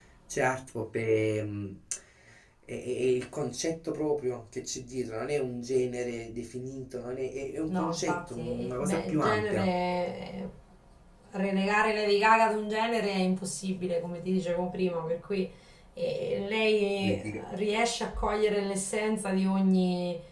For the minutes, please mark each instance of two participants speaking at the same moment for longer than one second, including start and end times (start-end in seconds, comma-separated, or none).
7.8-9.6